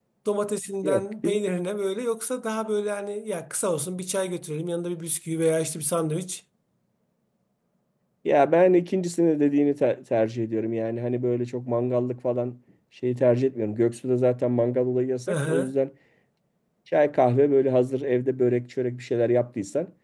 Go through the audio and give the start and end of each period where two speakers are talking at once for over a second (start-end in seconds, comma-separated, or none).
none